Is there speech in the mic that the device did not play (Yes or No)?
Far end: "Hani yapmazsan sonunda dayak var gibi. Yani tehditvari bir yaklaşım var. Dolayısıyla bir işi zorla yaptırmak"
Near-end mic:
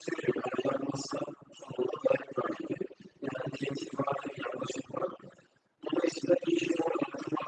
No